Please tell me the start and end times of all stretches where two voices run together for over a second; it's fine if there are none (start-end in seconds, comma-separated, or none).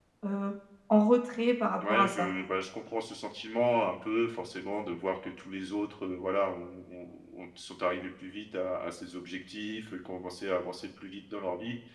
none